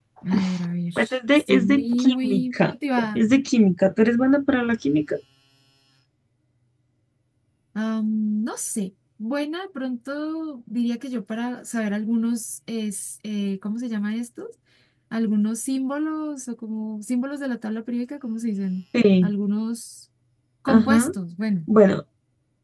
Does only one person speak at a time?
No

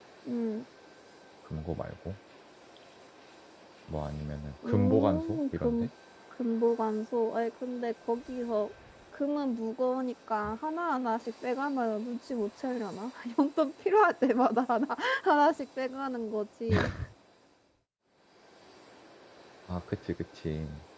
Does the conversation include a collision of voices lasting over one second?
Yes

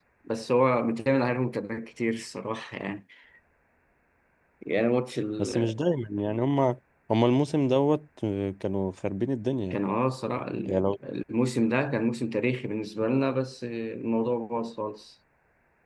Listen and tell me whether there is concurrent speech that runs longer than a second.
No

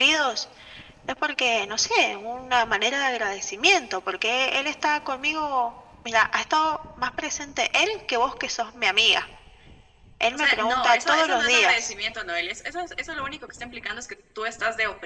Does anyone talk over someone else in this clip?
Yes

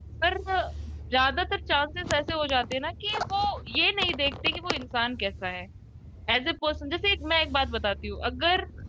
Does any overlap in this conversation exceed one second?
No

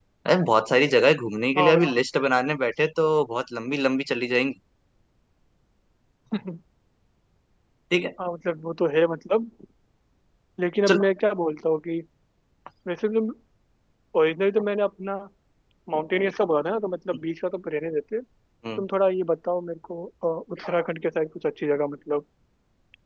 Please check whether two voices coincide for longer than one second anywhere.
No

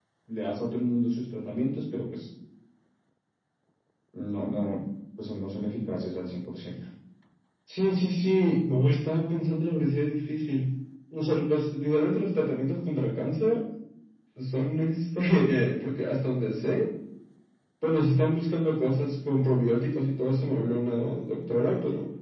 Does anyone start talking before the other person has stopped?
No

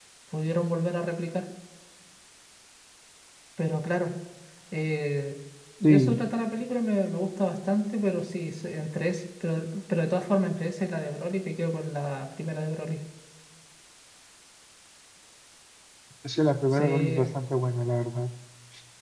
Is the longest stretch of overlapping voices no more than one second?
Yes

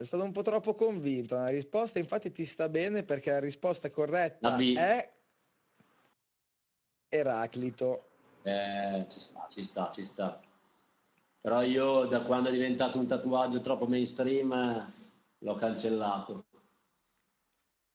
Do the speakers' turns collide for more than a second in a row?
No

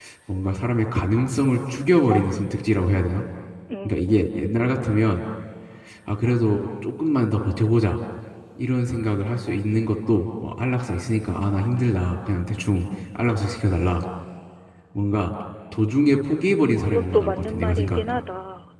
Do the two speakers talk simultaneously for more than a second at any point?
Yes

